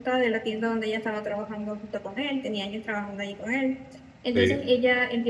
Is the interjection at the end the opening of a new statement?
No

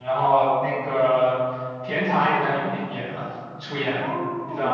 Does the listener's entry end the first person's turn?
Yes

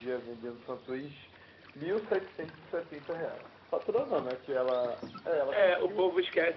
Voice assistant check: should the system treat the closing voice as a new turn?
Yes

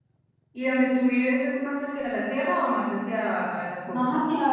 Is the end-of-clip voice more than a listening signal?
Yes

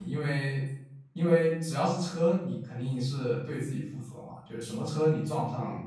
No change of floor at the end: Yes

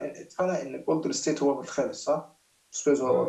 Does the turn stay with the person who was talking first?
No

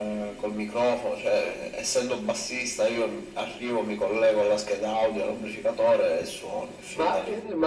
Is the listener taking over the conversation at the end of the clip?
Yes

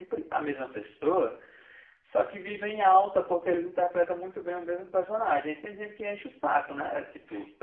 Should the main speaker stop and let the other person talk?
No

